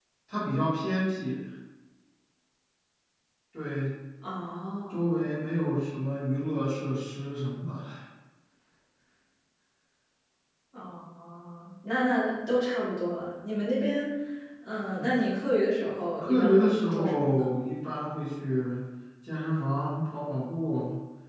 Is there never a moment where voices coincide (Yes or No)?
No